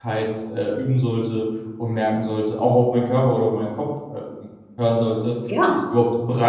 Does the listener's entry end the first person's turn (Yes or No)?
No